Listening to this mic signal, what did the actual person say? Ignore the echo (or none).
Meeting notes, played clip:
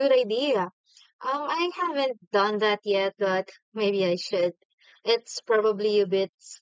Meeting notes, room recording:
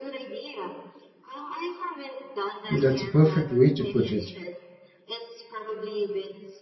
That's a perfect way to put it